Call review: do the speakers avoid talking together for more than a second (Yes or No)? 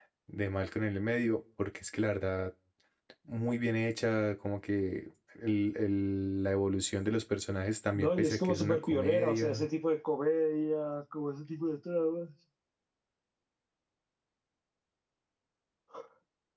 No